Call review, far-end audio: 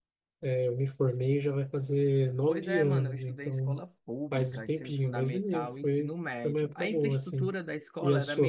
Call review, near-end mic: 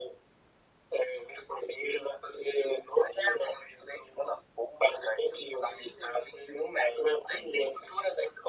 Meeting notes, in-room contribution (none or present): none